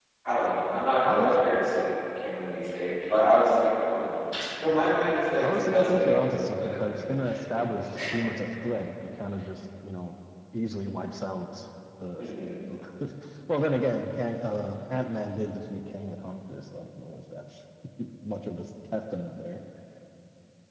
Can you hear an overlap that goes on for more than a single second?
Yes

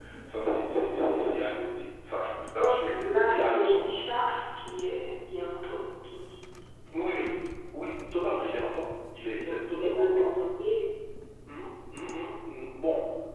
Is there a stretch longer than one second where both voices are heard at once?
Yes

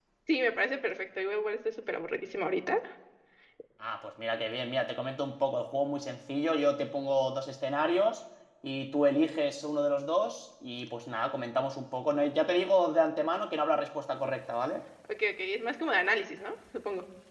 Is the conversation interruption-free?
Yes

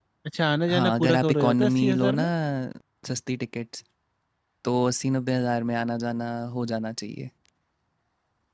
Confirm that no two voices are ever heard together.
No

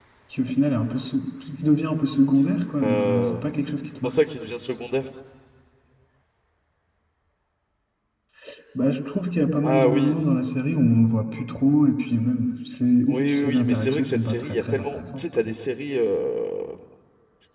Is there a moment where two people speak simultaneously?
Yes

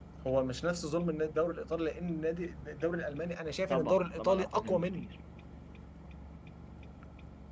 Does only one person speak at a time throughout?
No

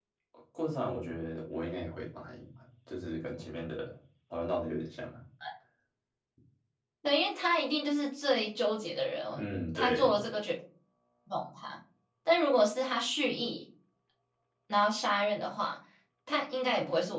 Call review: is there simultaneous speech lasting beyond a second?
No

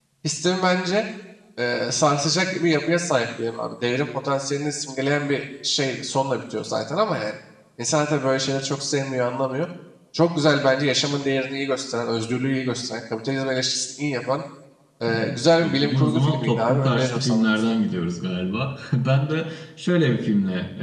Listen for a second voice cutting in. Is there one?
Yes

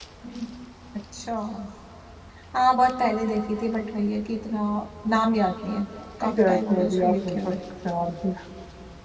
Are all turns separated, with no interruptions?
No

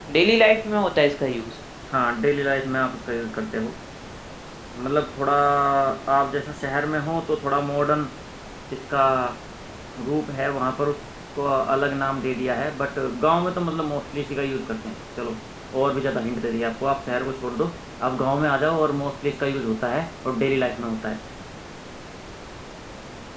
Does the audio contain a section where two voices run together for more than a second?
No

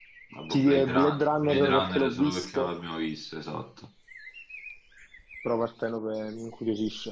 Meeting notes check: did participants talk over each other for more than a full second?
Yes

